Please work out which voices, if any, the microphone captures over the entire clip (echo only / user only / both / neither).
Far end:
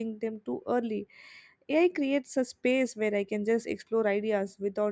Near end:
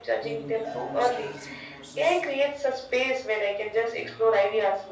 both